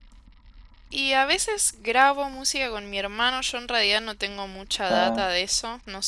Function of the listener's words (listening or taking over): listening